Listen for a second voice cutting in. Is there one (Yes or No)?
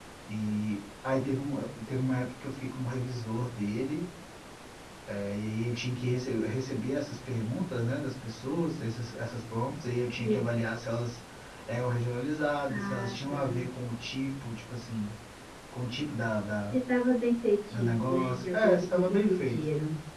Yes